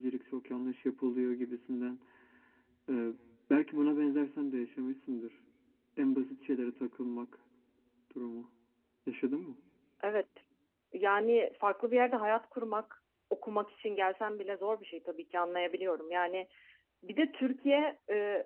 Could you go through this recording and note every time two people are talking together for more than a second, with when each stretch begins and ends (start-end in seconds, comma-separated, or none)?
none